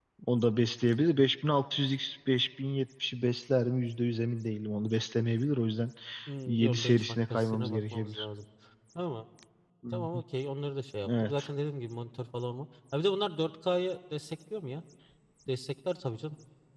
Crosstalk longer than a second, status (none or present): present